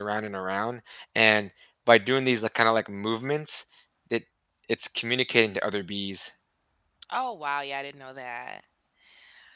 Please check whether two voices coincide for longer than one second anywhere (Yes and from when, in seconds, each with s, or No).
No